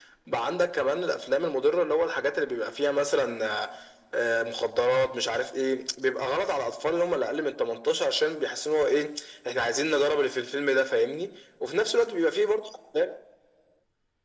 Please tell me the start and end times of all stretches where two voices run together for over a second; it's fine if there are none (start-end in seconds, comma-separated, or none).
none